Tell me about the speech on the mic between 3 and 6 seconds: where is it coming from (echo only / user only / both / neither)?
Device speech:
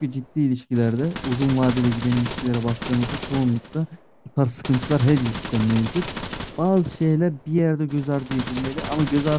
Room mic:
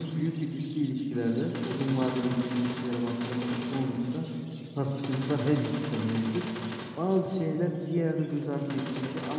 echo only